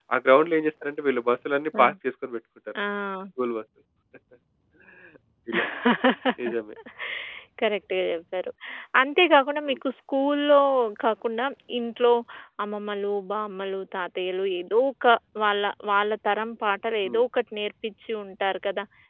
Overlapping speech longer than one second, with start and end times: none

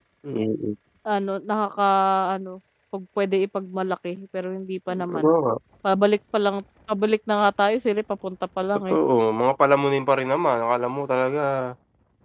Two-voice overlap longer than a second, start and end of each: none

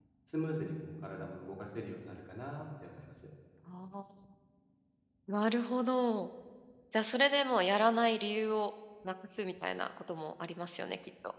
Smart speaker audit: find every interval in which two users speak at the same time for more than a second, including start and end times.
none

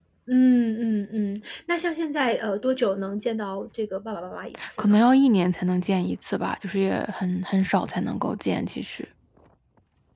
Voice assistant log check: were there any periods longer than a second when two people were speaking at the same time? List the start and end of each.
none

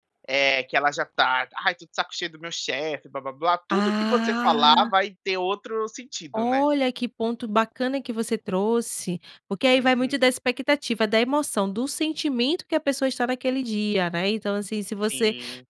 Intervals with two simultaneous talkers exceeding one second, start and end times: 3.7-4.9

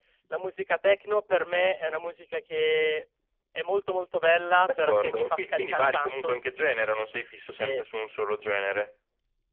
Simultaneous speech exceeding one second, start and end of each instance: 4.6-6.4

